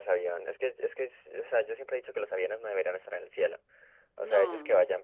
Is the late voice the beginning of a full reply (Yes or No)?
No